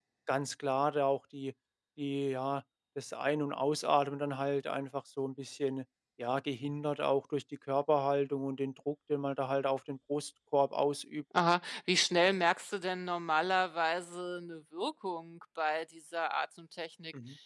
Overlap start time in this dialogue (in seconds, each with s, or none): none